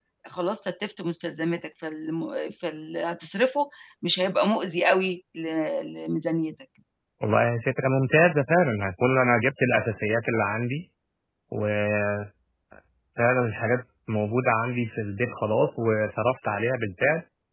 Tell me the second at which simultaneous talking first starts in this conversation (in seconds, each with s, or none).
none